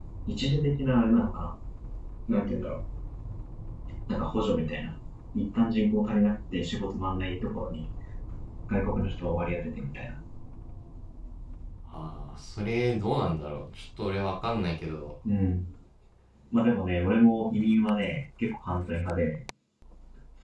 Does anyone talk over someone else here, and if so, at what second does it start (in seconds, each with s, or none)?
none